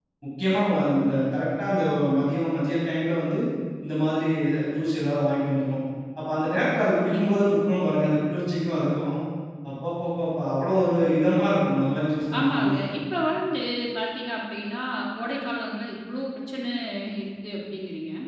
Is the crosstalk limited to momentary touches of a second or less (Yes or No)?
Yes